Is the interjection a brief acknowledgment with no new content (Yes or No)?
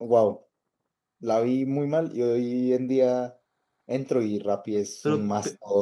Yes